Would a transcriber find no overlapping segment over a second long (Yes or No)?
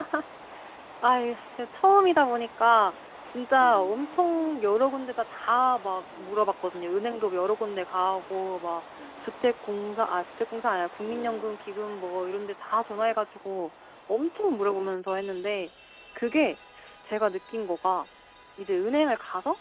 No